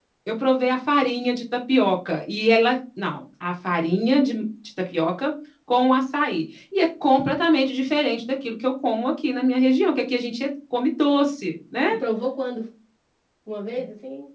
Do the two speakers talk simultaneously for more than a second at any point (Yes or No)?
No